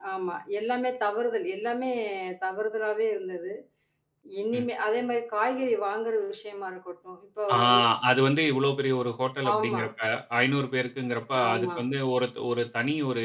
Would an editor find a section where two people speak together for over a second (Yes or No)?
No